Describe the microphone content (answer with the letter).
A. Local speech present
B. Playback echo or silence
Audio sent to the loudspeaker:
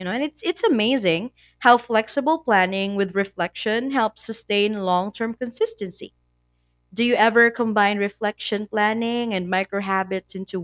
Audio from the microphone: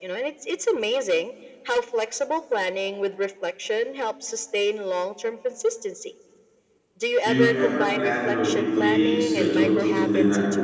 A